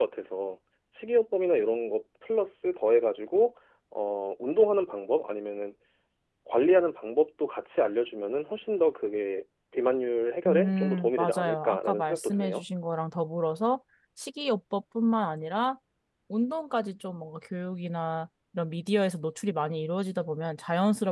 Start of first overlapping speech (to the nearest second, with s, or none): 10 s